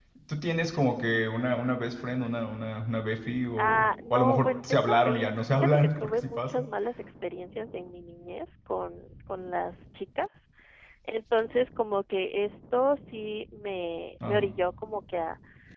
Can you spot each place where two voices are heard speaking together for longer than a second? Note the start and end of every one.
3.6-6.7

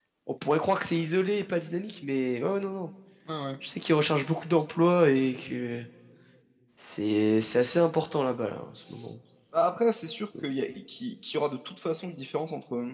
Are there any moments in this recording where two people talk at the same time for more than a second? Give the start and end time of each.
none

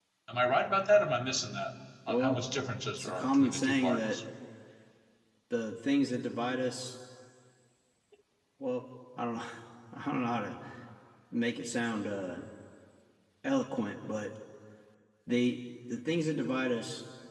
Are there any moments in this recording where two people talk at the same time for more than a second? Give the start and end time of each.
3.0-4.2

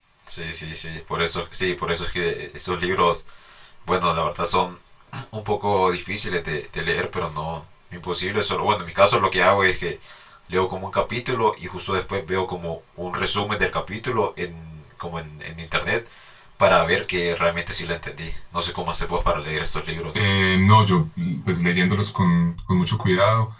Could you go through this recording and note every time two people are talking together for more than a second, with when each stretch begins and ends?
none

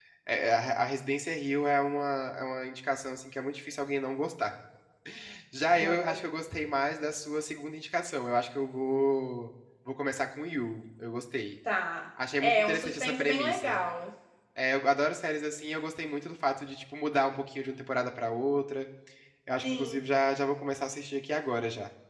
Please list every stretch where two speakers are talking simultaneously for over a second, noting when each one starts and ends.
12.4-13.8

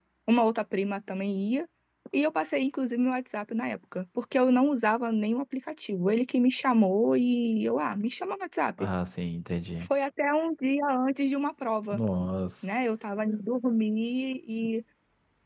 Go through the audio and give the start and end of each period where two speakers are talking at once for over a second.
none

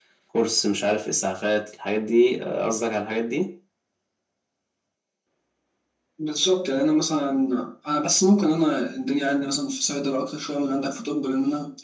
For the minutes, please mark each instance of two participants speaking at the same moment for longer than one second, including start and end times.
none

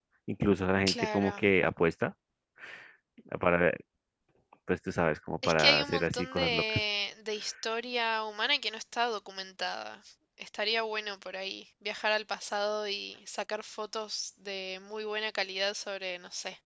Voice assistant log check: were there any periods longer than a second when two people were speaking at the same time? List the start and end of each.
5.5-6.8

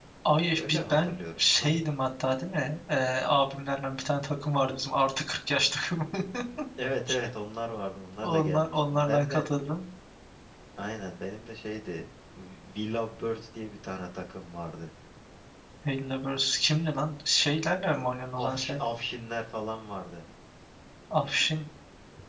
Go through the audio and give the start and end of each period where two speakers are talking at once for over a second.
0.5-1.8, 8.2-9.4

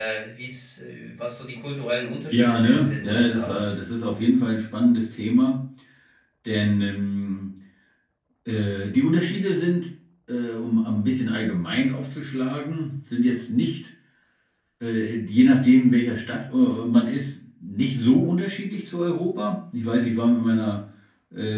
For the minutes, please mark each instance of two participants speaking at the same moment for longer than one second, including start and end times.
2.3-3.6

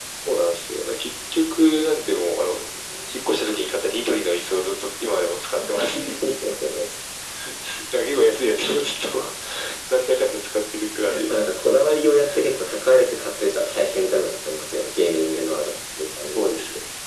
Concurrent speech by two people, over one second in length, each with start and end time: none

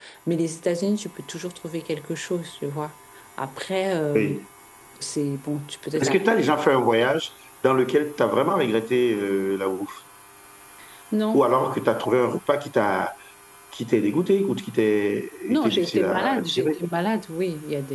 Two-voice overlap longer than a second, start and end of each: 15.5-16.8

